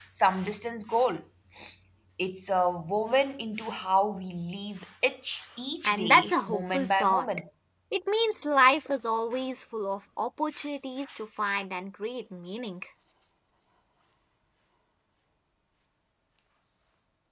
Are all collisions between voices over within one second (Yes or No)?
No